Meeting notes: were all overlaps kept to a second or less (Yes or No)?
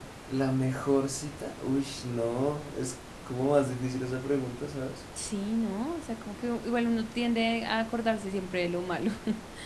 Yes